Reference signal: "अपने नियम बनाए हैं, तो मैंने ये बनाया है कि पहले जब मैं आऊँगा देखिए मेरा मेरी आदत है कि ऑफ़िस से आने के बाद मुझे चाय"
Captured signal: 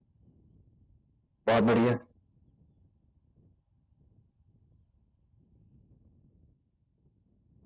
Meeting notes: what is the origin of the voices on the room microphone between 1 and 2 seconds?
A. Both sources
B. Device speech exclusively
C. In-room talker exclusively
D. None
C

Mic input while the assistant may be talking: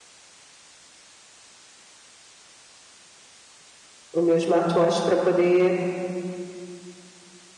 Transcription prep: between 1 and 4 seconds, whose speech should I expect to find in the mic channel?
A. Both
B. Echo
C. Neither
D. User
C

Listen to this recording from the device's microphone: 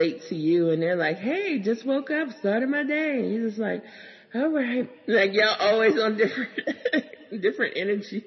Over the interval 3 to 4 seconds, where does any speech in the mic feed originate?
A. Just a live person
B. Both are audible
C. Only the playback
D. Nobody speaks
C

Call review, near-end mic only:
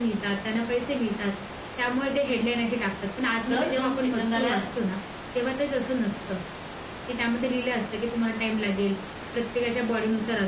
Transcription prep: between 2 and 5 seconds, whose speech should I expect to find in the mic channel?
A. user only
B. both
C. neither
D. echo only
B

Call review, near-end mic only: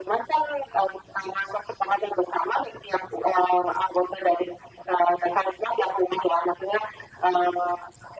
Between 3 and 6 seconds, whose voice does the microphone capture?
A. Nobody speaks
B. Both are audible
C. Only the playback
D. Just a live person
C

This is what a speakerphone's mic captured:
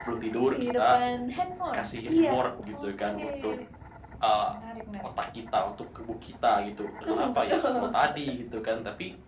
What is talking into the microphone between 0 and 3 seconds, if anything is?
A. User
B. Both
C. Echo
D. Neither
C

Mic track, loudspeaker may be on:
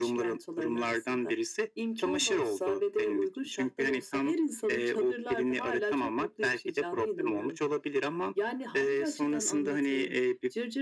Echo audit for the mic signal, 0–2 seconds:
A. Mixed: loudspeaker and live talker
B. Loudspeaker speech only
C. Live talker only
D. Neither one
B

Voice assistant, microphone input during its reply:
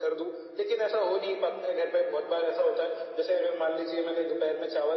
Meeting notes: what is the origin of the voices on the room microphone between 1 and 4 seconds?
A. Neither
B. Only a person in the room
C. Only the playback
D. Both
C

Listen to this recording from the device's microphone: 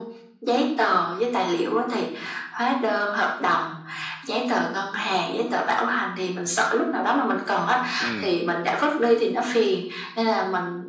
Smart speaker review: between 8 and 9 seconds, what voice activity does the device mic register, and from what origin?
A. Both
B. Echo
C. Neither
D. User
A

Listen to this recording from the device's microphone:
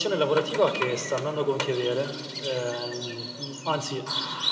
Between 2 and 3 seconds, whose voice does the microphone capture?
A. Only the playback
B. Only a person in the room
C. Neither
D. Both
A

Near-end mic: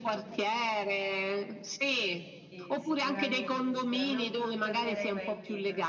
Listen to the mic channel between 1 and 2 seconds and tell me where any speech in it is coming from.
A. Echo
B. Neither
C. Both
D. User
A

